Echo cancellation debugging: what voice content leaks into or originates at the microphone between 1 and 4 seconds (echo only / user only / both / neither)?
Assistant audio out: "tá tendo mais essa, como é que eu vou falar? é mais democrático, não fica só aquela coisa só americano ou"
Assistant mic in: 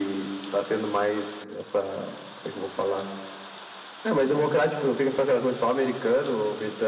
echo only